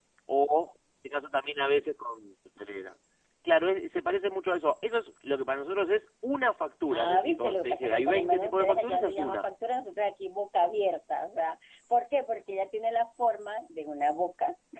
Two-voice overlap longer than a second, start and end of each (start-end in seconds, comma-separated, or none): 6.9-9.4